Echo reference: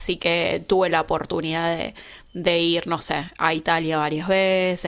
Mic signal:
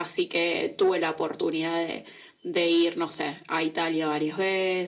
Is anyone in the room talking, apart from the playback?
No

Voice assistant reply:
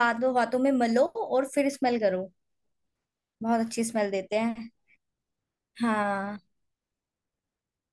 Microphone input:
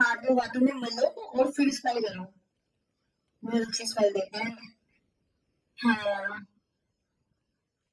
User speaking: No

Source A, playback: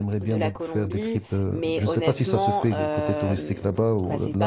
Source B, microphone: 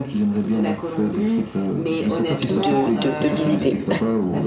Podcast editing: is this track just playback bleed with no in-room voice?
No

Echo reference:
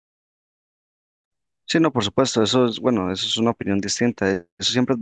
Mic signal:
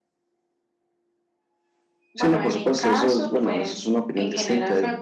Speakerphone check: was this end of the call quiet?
No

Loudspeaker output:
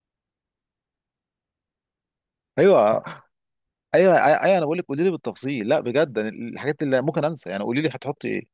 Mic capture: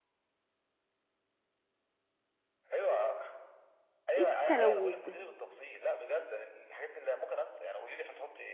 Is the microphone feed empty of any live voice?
No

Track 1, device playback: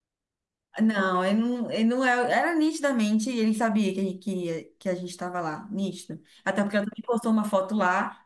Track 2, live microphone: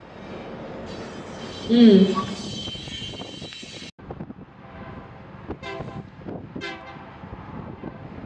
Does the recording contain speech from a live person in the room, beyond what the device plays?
Yes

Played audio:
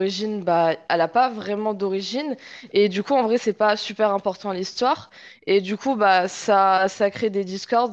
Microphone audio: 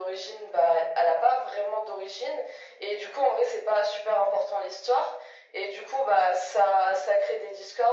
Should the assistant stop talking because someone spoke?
No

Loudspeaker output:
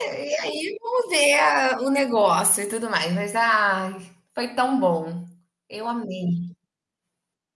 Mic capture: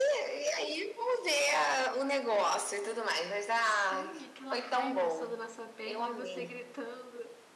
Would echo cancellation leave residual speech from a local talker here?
Yes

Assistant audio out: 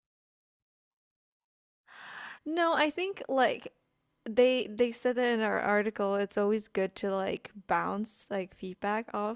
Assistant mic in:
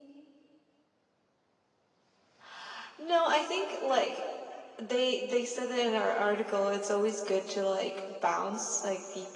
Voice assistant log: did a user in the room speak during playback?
No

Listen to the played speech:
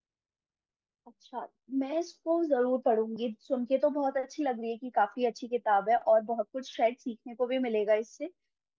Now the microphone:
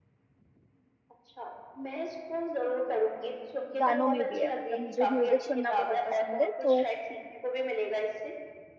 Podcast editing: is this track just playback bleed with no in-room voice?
No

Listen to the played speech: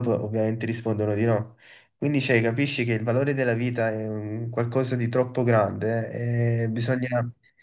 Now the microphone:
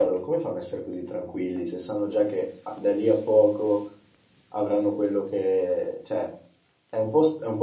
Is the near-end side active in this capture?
Yes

